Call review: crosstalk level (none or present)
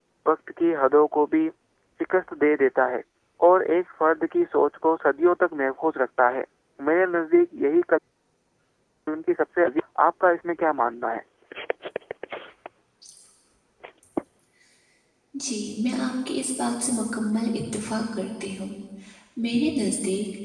none